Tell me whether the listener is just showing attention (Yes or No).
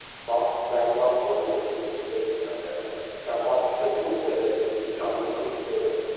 Yes